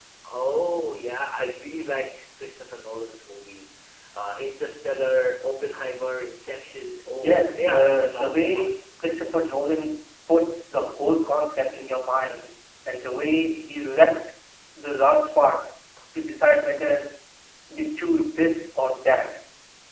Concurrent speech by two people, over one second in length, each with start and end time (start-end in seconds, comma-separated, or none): 7.1-8.7